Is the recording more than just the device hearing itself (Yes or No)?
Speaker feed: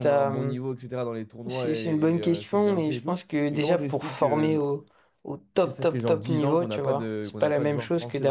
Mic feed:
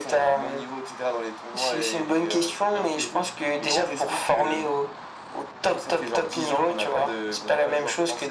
No